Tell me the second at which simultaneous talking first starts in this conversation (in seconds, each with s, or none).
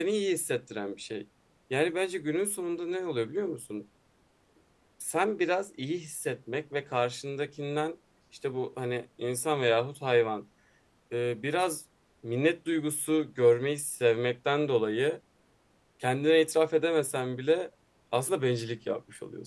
none